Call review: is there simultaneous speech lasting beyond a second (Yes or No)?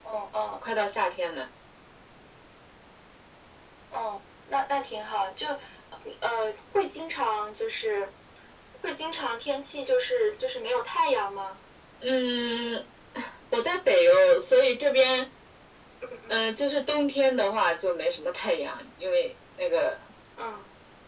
No